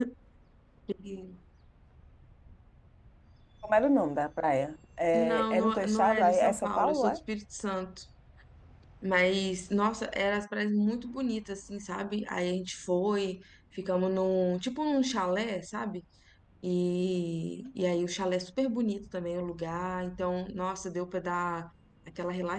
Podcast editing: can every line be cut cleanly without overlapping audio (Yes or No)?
No